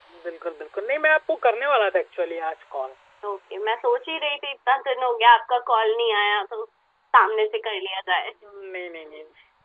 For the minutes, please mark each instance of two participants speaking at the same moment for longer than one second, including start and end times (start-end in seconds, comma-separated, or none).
none